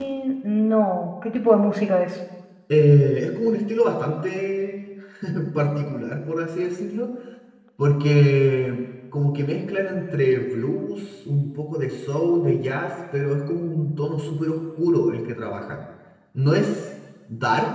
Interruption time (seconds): none

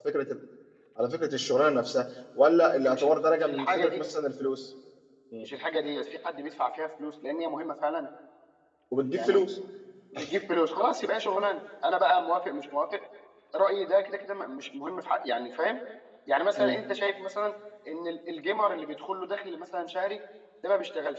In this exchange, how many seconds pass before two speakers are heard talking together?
2.8 s

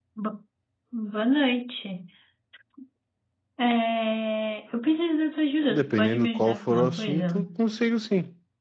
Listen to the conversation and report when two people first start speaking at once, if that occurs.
5.7 s

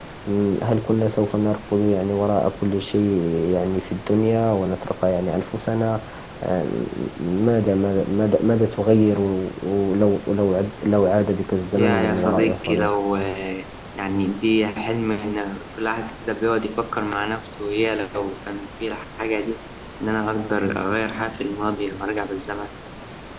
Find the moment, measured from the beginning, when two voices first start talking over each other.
11.7 s

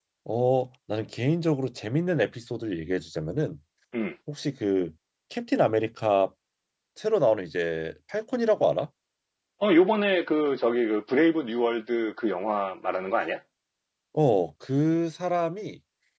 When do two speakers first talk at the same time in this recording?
none

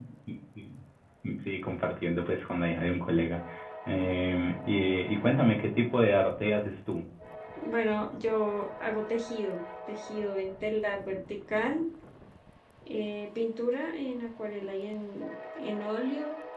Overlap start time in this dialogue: none

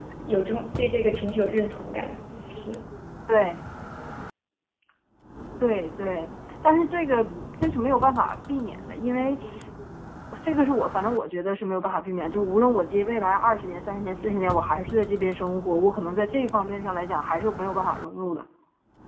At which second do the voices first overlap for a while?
none

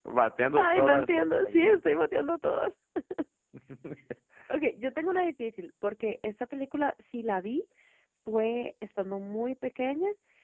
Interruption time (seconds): 0.6 s

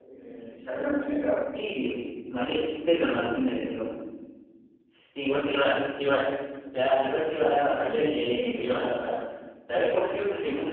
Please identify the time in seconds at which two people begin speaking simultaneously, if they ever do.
7.7 s

